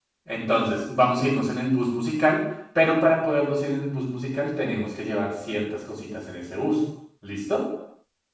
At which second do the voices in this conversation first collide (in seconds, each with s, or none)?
none